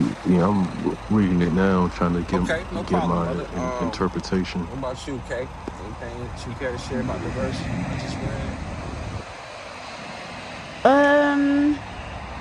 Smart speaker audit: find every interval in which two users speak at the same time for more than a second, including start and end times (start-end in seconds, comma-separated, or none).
2.3-4.0